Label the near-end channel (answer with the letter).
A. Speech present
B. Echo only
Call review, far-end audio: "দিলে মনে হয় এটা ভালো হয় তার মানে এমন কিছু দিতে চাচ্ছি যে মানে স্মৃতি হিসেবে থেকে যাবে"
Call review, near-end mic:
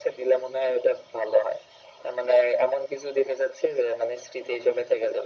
B